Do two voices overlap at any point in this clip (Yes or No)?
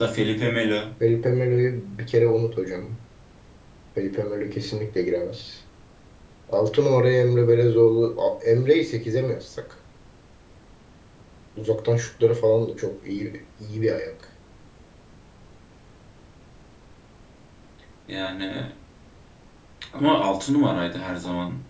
No